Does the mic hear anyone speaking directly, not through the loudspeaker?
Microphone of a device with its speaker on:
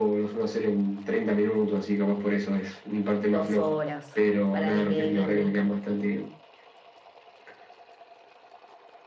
Yes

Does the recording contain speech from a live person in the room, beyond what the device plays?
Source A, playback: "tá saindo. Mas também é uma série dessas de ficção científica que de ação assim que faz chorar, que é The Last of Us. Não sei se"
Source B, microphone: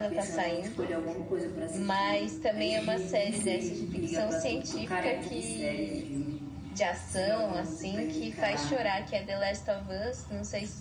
Yes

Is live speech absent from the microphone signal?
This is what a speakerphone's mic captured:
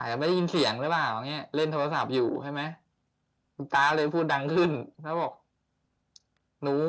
Yes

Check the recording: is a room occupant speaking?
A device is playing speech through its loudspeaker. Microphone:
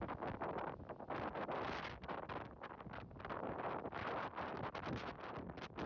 No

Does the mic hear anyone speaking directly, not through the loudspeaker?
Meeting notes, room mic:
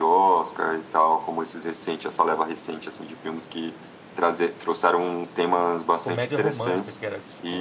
Yes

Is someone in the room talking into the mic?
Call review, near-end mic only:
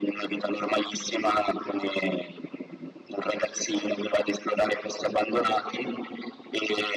No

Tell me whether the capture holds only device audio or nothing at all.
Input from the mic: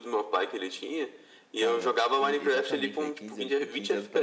No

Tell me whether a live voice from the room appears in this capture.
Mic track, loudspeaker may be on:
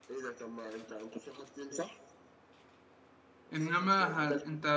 Yes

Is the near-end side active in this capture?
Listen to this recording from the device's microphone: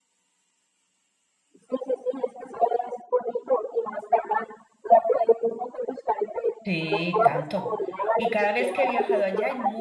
Yes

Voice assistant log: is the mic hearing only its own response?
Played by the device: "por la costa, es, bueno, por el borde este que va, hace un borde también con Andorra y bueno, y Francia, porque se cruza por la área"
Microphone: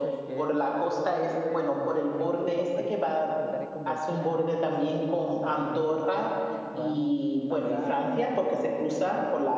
No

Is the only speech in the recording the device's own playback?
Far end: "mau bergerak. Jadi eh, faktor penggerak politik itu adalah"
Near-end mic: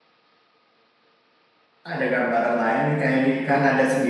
No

